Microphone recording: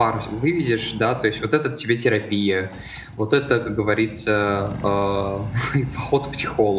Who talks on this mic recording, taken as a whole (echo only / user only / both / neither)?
user only